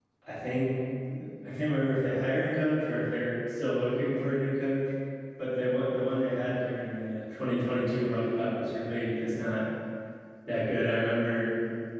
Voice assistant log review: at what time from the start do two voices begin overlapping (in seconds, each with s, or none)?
none